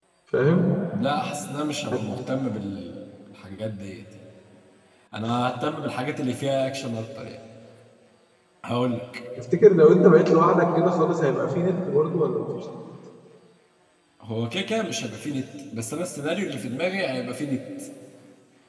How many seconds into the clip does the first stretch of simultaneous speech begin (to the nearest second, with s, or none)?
none